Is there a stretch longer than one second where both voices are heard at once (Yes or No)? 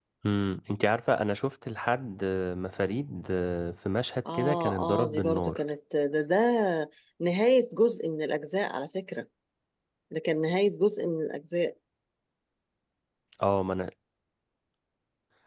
Yes